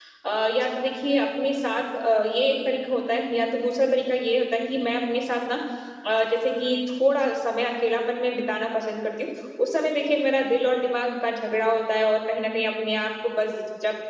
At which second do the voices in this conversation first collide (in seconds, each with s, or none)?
none